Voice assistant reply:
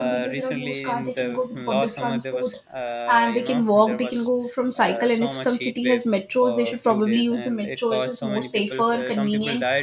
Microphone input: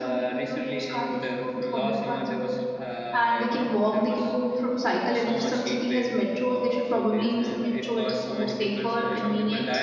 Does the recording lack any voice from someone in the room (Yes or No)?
Yes